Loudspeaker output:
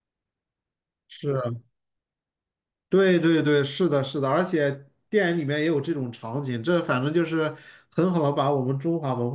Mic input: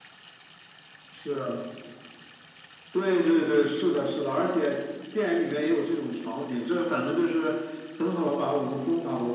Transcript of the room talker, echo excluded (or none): none